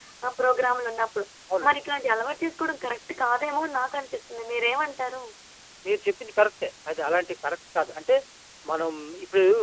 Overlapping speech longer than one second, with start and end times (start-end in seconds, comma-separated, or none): none